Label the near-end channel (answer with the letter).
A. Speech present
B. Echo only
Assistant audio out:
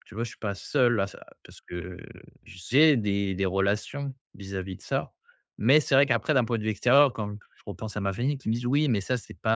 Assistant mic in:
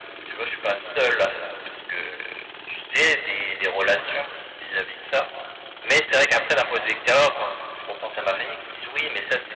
B